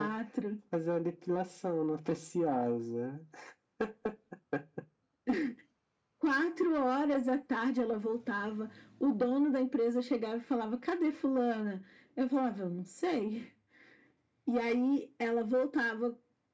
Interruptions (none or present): none